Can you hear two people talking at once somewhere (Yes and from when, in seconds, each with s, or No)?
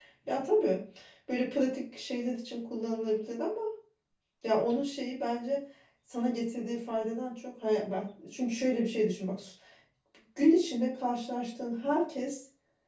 No